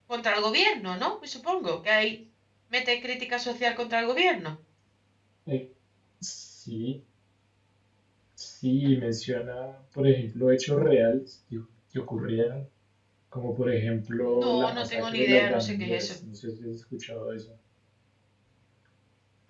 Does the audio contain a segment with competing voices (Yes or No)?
Yes